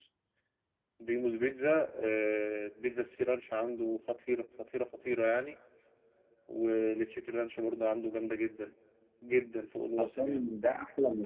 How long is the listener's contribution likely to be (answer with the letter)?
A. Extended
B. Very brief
A